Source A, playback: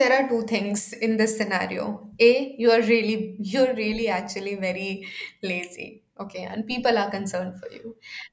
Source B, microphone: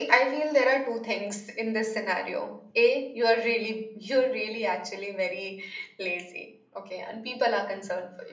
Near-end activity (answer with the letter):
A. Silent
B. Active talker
A